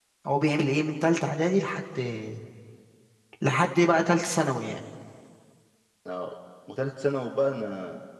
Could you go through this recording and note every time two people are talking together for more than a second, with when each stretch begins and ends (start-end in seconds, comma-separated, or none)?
none